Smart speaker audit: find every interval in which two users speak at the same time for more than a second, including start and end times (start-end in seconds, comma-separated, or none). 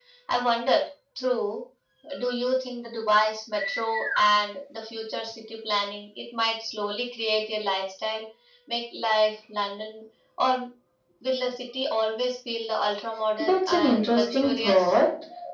13.4-15.0